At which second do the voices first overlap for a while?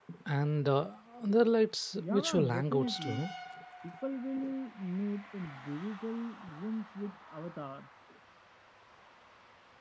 2.0 s

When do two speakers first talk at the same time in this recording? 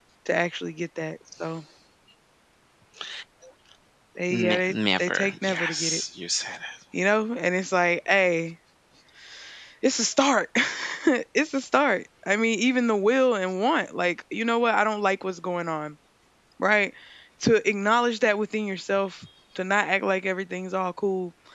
4.3 s

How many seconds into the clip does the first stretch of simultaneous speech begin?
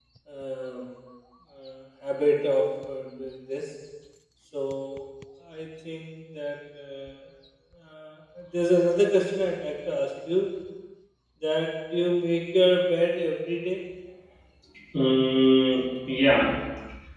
none

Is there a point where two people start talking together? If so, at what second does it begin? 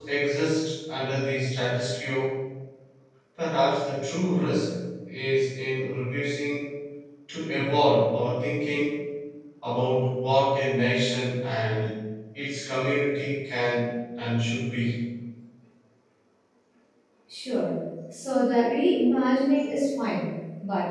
none

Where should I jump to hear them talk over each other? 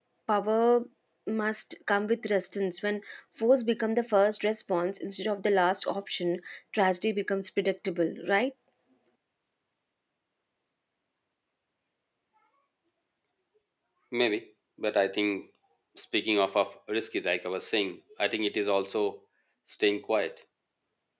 none

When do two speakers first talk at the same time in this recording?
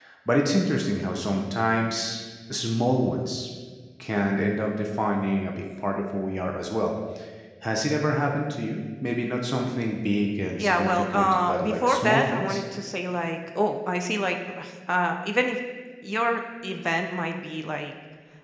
10.6 s

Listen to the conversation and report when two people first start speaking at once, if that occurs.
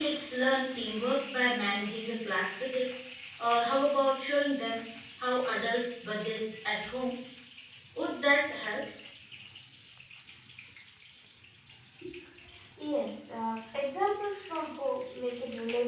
none

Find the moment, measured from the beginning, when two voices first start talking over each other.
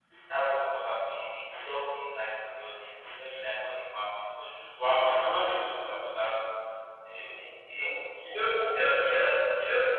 none

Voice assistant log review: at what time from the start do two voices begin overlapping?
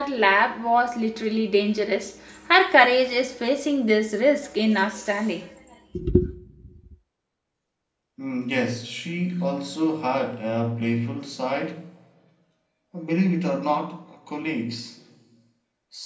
none

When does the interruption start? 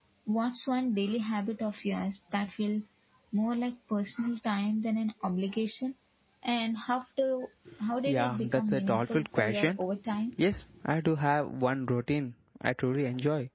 8.1 s

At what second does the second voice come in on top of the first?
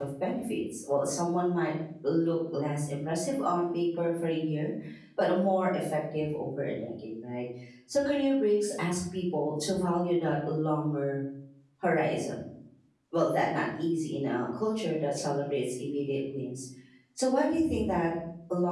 none

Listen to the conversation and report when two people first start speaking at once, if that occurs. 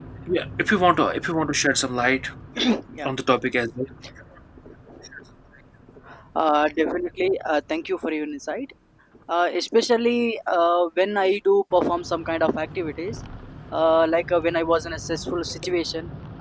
none

